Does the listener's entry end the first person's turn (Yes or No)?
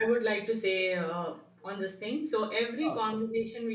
No